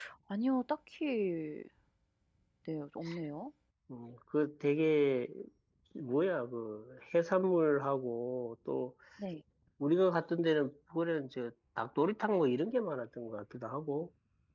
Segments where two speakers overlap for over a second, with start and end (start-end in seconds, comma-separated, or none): none